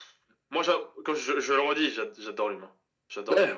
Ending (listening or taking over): taking over